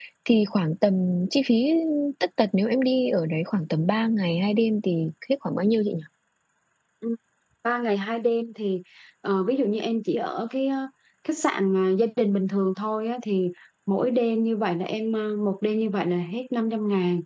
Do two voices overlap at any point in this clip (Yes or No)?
No